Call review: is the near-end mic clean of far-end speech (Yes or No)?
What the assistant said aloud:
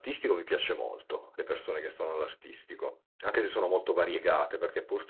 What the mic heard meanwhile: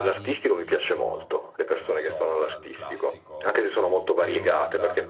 No